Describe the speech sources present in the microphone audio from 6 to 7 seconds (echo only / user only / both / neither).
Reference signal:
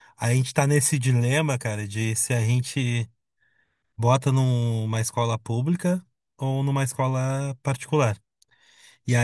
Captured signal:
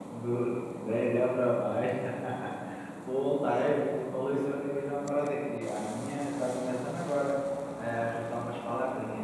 user only